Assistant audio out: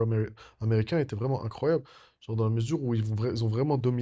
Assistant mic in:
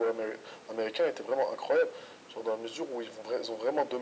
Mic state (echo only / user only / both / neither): echo only